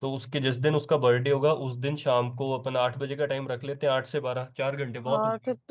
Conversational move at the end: taking over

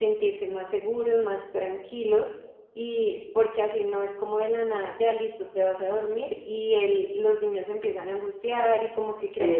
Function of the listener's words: taking over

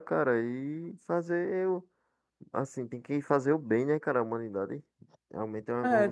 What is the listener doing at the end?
taking over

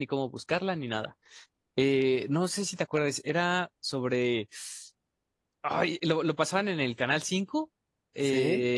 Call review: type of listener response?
listening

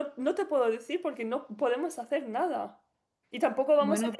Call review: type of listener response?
listening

